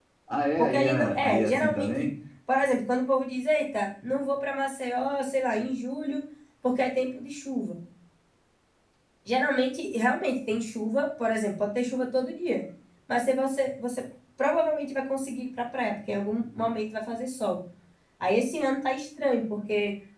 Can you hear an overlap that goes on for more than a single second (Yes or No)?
Yes